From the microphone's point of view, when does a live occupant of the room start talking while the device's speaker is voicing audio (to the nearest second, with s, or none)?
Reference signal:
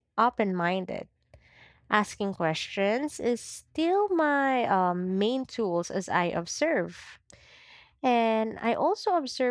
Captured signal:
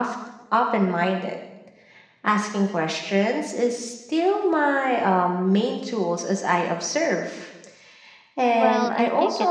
9 s